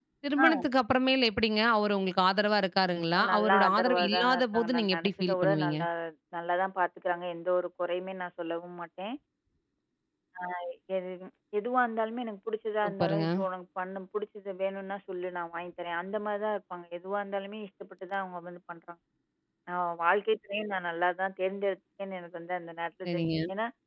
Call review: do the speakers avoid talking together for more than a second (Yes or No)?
No